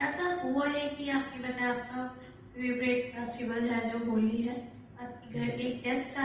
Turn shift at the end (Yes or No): No